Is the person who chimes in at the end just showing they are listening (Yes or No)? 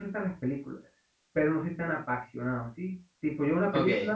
Yes